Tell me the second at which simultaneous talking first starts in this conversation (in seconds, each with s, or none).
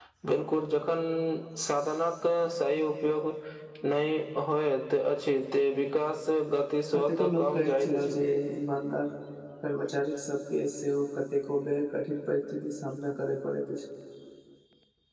6.9 s